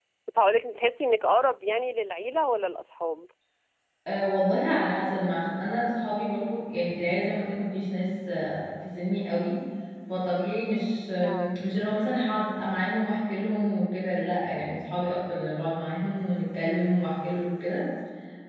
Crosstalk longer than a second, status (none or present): none